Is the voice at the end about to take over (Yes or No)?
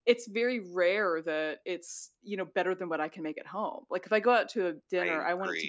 No